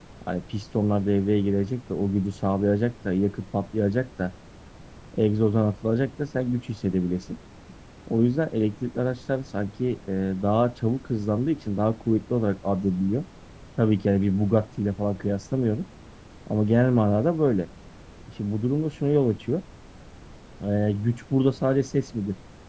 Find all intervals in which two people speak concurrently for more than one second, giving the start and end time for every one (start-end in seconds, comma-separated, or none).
none